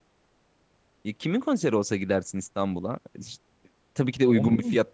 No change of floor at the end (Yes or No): Yes